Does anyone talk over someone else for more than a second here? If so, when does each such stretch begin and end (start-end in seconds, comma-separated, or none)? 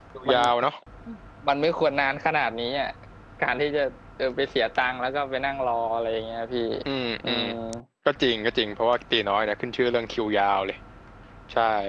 none